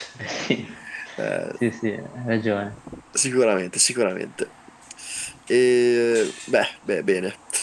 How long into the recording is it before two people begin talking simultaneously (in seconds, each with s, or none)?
none